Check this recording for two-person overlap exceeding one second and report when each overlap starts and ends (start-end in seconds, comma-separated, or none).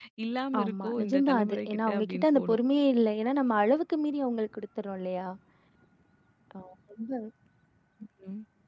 0.6-2.6